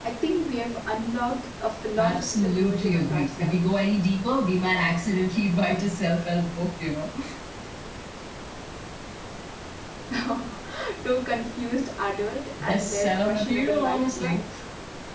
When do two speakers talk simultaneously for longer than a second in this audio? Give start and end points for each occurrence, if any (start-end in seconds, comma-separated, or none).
2.0-3.6, 12.6-14.4